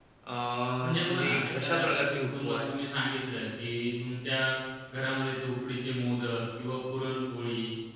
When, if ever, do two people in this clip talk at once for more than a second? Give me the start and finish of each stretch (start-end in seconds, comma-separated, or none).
1.0-2.7